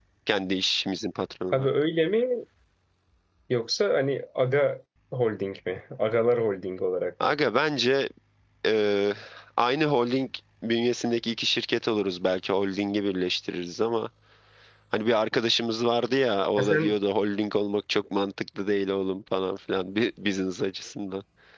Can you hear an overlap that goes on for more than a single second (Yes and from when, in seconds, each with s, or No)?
No